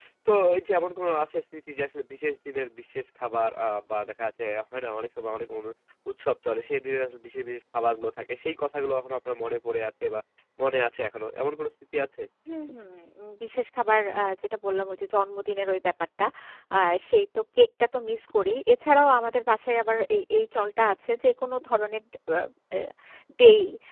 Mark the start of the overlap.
none

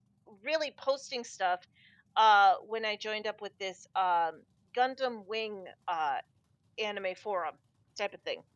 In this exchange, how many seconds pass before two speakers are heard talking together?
none

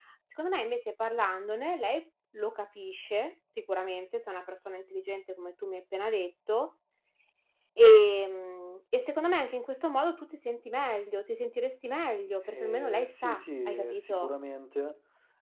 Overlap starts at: 12.5 s

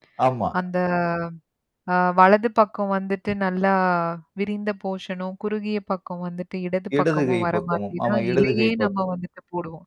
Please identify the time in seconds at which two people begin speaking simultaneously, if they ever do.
6.9 s

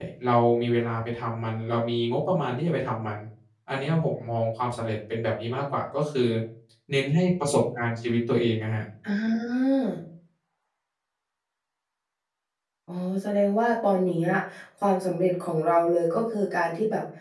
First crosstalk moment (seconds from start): none

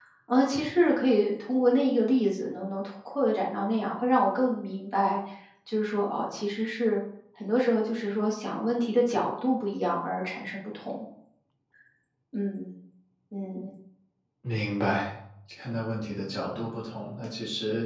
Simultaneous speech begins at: none

